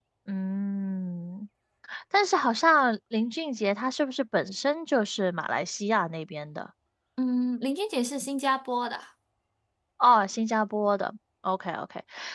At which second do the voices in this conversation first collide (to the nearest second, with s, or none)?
none